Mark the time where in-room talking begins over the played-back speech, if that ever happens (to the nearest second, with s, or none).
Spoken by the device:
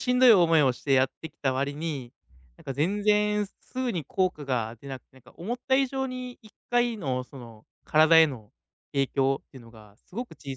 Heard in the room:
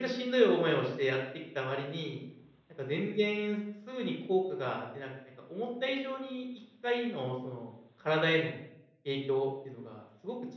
none